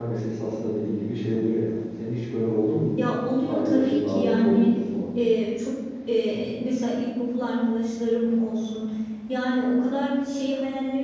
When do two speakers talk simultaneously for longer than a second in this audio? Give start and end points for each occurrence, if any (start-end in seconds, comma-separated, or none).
3.4-4.7